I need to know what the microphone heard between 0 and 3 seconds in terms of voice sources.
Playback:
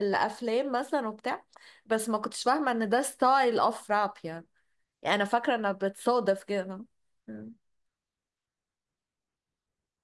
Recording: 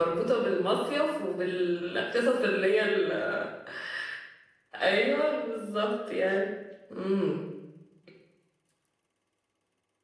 user only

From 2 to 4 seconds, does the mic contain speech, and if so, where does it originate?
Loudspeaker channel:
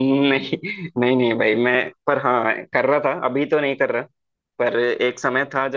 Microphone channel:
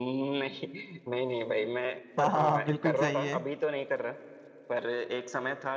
both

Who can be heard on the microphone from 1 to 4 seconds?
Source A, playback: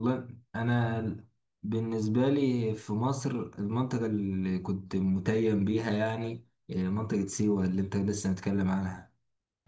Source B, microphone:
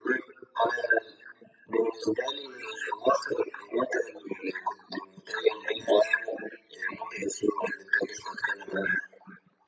echo only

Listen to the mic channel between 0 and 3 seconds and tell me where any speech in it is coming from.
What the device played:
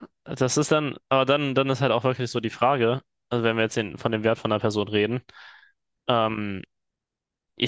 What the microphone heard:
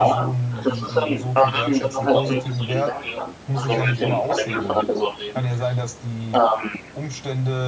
both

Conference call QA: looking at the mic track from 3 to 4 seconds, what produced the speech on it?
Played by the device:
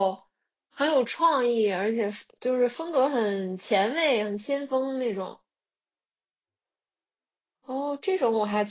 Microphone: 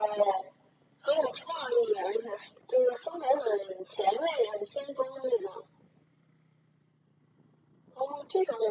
echo only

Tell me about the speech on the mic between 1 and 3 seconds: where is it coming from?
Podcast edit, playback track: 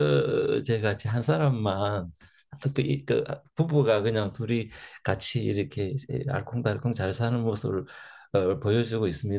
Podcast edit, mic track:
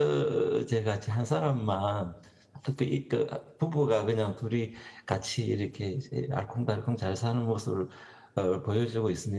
echo only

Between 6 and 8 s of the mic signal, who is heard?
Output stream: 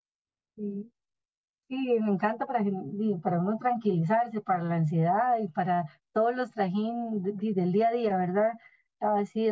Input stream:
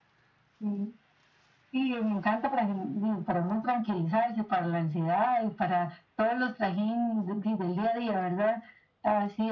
echo only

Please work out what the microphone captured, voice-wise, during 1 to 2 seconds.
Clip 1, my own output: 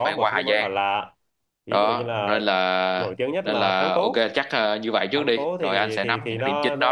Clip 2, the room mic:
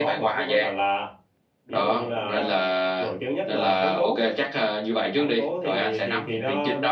both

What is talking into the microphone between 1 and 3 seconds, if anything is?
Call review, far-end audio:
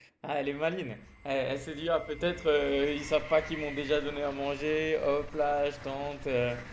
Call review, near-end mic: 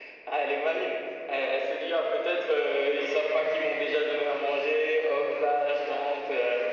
echo only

